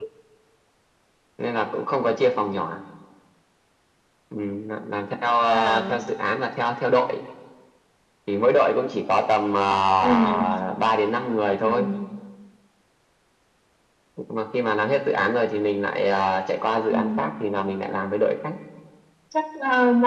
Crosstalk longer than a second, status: none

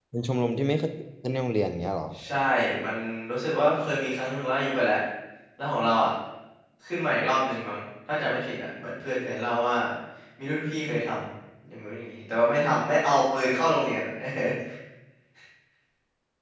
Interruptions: none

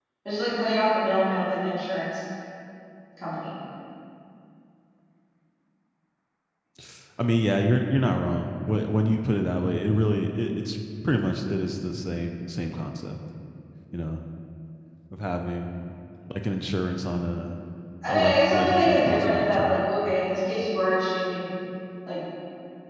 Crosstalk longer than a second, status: present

